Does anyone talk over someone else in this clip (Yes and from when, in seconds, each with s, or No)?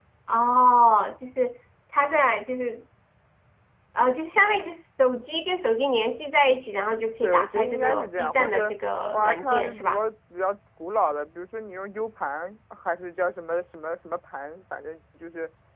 Yes, from 7.2 s